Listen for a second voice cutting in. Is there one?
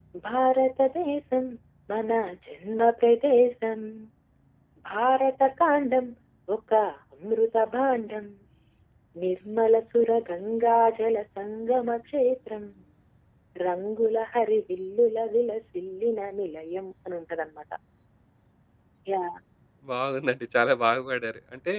No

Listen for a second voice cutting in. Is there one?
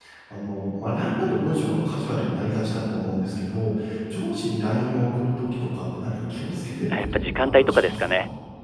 Yes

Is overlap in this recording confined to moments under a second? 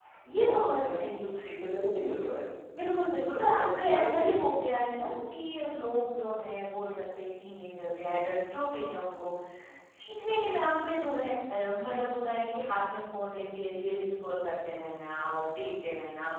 No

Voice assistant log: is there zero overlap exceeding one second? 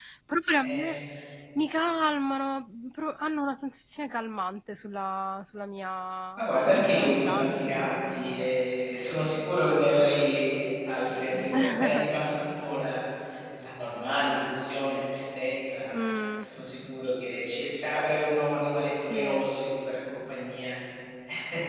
No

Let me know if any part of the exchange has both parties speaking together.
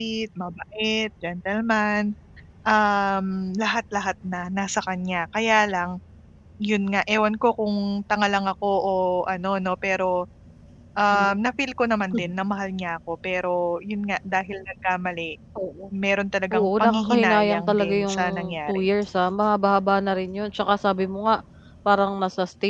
Yes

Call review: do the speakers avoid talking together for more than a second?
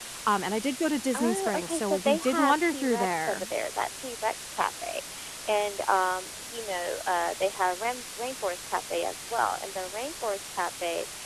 No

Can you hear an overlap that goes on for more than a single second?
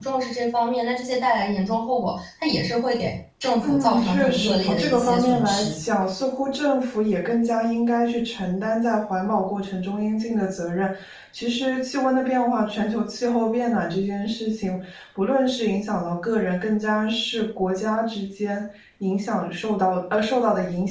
Yes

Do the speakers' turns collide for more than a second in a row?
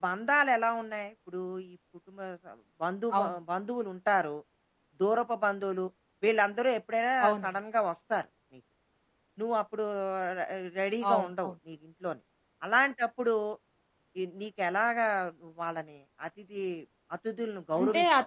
No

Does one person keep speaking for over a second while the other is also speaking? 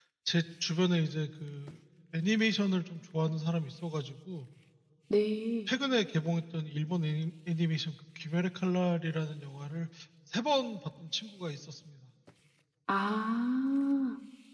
No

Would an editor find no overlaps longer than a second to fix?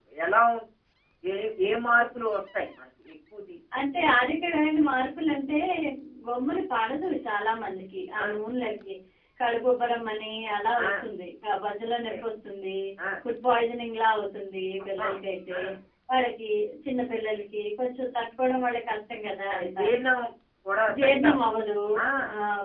Yes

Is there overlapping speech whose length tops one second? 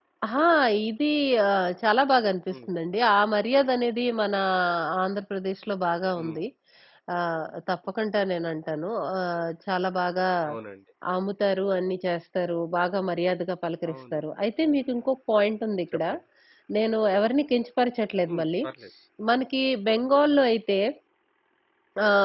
No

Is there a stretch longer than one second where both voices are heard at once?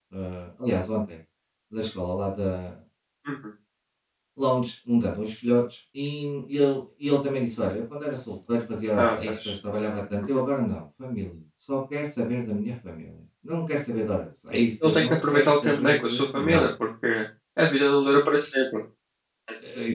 Yes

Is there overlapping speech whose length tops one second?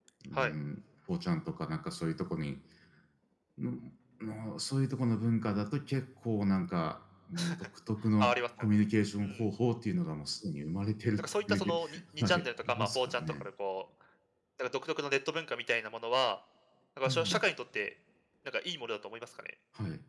Yes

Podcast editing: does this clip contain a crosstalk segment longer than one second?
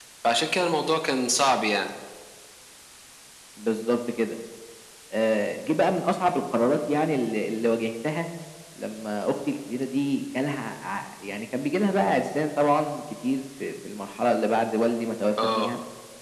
No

